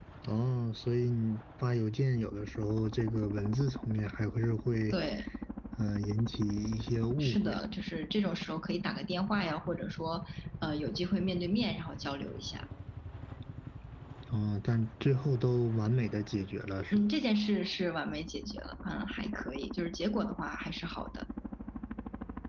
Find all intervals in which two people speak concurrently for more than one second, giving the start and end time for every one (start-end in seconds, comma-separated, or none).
none